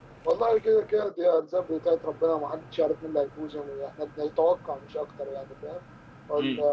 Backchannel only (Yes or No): Yes